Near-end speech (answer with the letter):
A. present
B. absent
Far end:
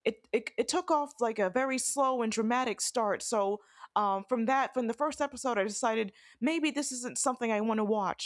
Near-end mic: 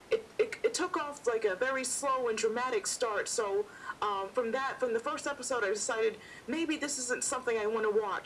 B